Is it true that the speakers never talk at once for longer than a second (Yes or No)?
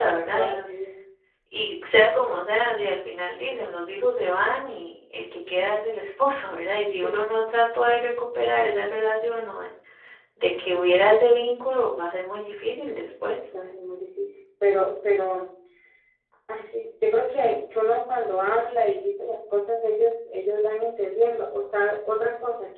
Yes